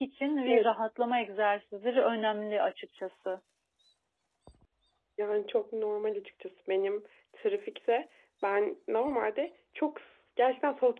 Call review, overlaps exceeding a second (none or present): none